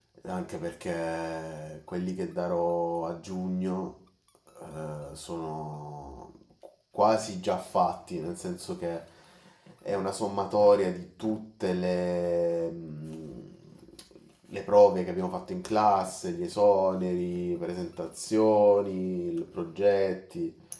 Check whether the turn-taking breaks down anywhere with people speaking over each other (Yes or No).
No